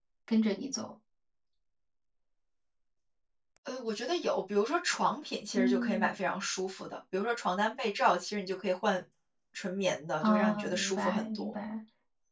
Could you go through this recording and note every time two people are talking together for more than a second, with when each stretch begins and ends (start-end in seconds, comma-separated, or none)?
10.2-11.5